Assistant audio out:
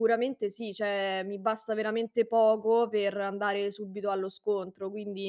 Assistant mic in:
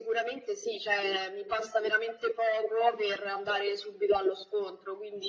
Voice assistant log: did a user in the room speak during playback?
No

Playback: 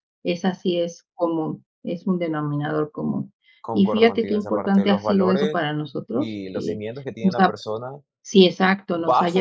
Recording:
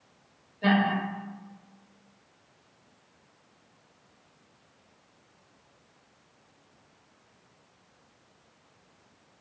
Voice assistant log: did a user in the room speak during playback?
Yes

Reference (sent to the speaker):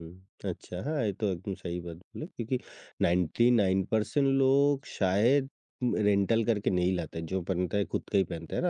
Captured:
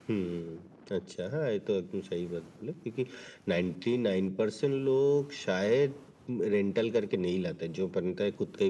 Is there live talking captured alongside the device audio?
No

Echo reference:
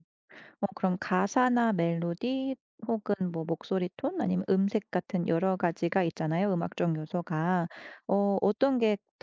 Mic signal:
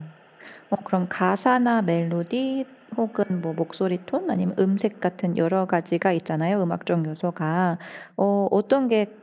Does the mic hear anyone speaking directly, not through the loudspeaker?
No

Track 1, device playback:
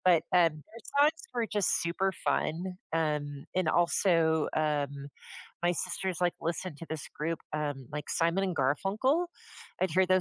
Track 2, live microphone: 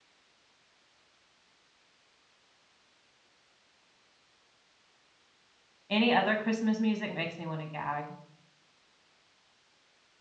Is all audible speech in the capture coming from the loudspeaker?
No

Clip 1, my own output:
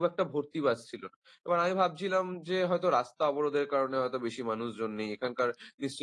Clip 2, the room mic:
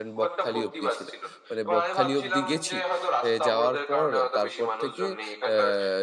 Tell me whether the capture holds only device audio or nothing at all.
No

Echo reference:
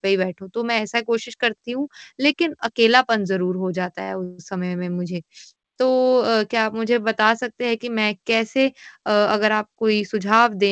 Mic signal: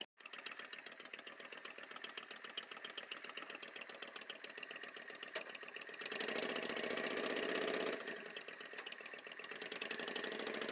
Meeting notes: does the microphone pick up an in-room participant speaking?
No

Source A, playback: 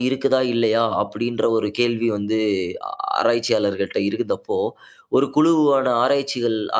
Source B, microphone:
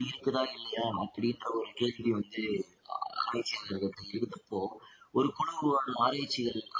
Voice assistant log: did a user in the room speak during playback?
No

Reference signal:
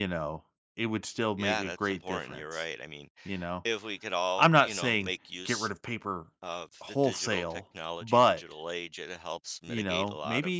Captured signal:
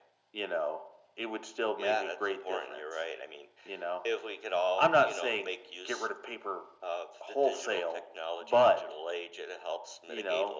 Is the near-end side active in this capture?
No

